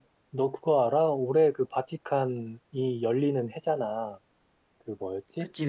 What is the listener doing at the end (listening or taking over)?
listening